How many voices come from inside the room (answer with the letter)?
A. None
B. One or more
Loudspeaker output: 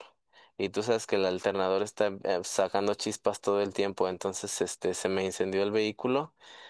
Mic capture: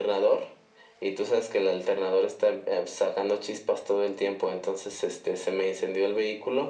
A